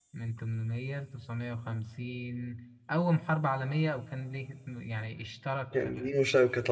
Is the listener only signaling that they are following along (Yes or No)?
No